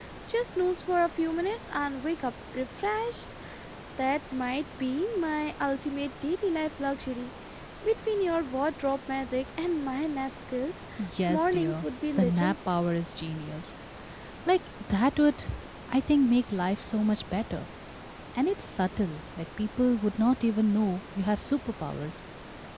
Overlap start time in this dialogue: 11.3 s

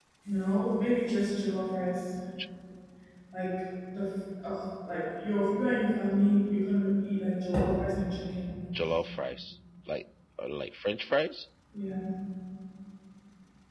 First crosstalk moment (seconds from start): none

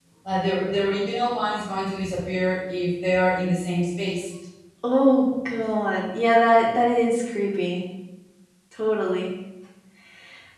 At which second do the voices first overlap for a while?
none

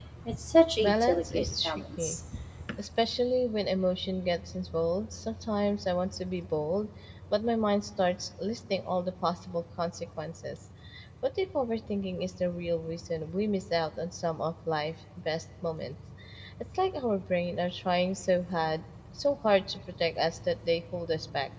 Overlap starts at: 0.8 s

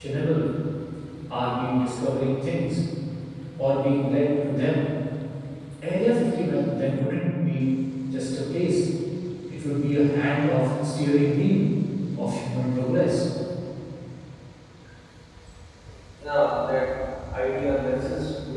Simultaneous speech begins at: none

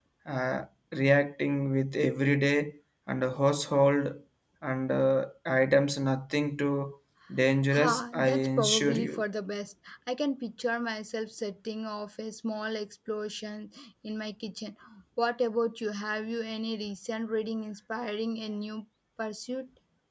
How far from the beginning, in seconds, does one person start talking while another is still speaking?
7.7 s

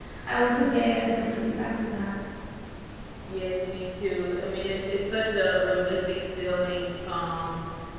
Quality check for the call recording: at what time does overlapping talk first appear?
none

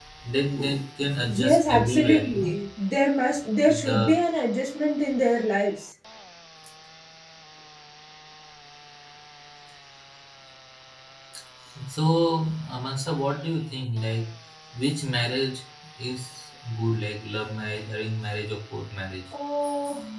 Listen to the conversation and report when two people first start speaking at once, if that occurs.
1.3 s

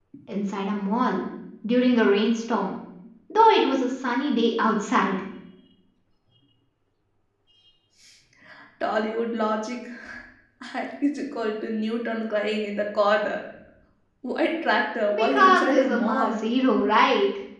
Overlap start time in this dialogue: 15.1 s

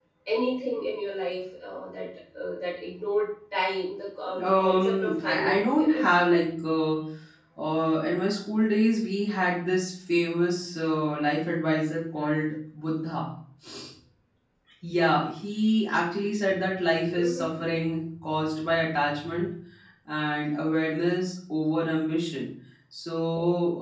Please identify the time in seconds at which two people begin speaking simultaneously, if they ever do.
4.4 s

